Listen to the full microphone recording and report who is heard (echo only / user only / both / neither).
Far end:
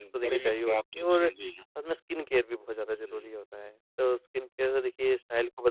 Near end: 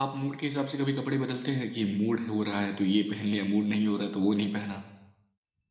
user only